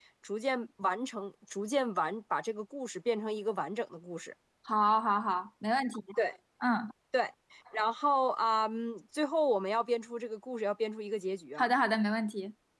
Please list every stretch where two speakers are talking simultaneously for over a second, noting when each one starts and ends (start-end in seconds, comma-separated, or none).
none